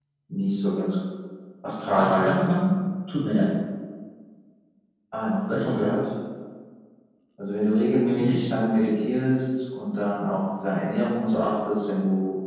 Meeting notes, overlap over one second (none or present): none